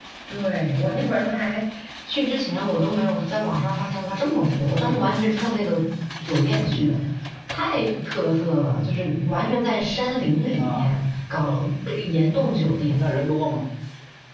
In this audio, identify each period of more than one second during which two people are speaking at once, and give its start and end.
none

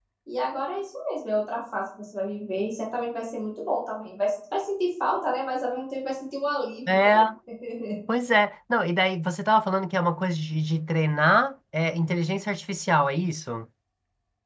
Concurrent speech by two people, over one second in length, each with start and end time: none

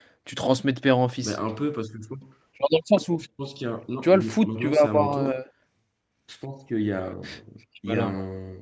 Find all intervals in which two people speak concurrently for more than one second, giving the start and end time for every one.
4.0-5.3

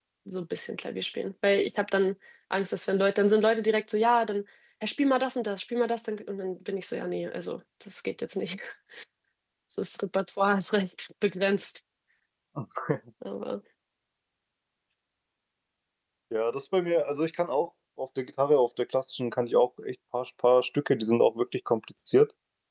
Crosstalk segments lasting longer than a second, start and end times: none

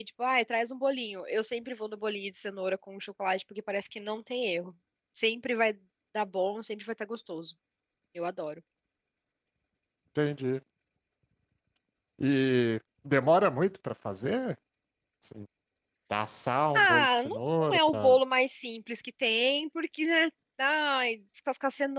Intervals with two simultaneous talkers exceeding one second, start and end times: 16.7-18.2

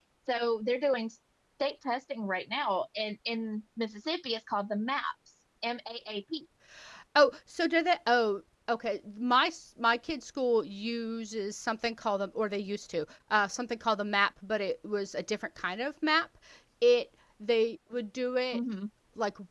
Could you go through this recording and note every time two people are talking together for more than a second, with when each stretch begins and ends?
none

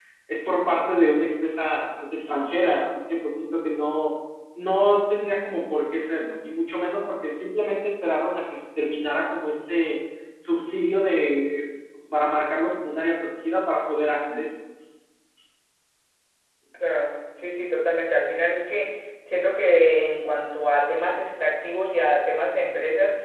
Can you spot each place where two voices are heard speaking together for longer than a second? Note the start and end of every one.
none

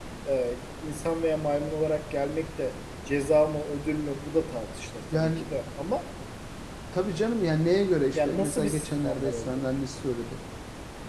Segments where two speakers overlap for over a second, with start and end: 8.2-9.6

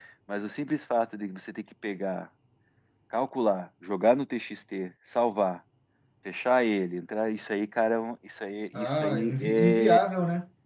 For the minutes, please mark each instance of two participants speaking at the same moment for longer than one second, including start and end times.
8.7-10.0

